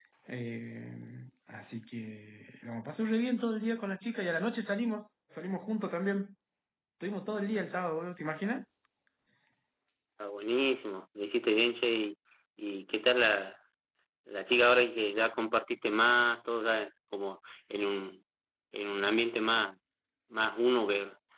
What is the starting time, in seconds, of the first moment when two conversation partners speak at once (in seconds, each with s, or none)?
none